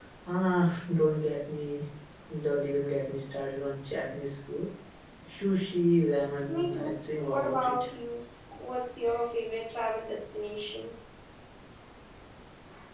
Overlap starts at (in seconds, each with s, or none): 6.5 s